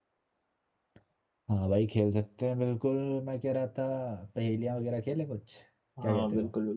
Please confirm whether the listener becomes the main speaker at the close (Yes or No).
Yes